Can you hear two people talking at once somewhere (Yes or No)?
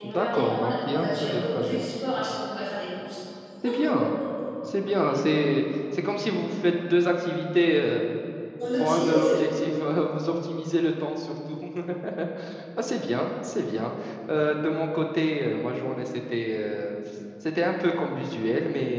Yes